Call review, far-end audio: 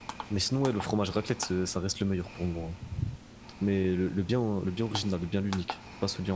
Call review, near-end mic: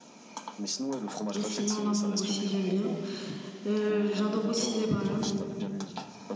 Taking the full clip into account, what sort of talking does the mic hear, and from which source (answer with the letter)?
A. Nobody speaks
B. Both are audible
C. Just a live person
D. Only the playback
B